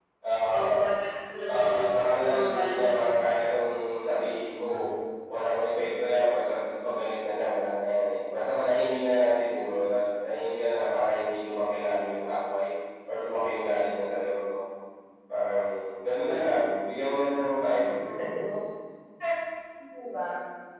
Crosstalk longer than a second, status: present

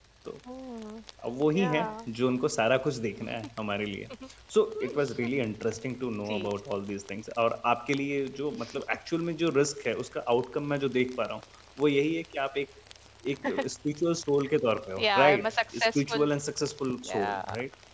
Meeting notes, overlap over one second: present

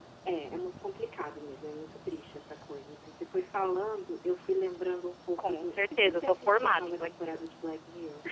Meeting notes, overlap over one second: present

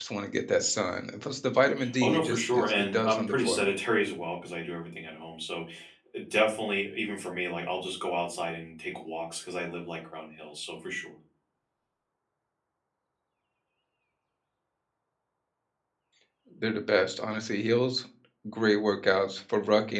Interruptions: present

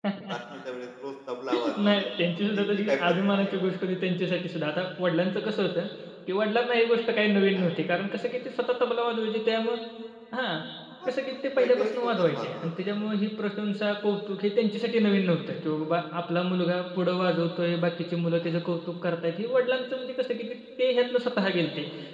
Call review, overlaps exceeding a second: present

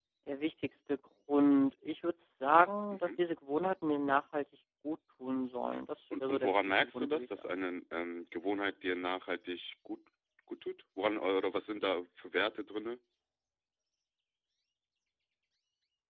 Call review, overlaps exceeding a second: present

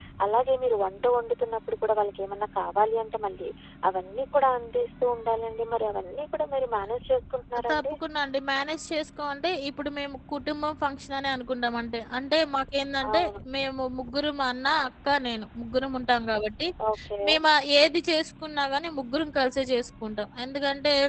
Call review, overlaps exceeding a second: none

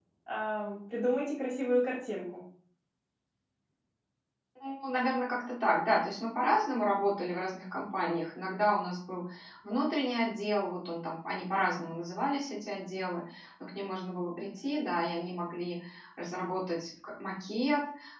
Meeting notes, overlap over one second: none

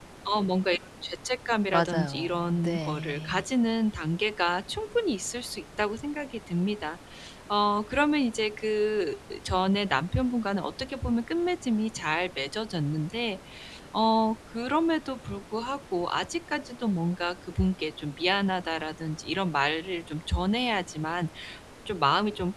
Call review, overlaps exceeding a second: present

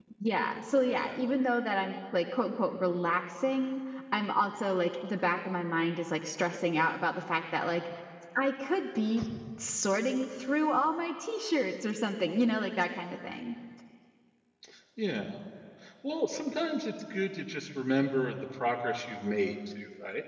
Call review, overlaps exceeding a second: none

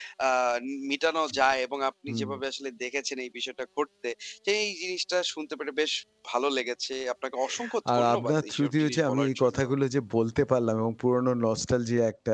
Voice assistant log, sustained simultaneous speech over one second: present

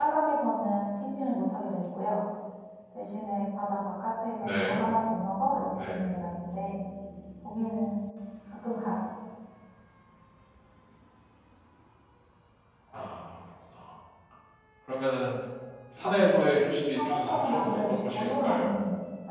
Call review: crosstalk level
present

